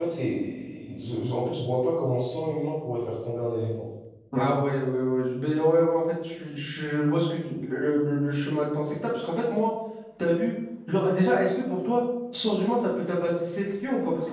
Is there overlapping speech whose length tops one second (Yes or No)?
No